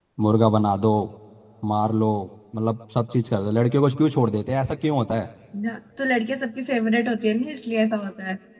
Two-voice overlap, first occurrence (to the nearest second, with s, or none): none